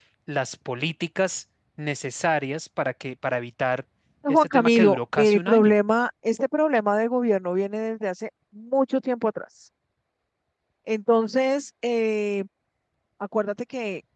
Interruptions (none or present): present